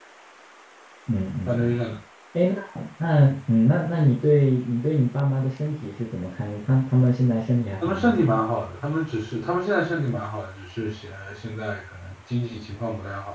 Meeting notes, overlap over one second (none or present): none